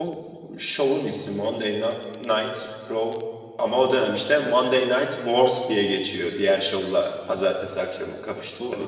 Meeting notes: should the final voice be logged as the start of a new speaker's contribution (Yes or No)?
Yes